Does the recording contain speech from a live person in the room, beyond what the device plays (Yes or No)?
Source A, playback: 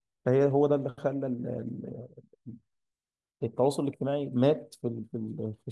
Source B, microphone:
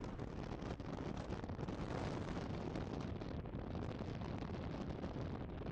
No